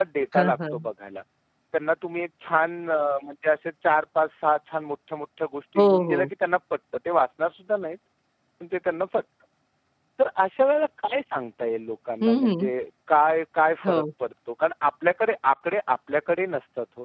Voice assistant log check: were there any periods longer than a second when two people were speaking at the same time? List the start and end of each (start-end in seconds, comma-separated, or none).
none